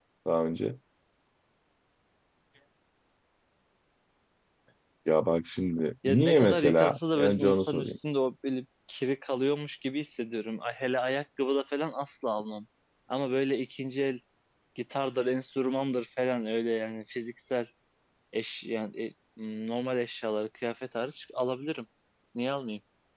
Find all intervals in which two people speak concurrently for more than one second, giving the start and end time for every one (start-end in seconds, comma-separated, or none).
6.1-7.9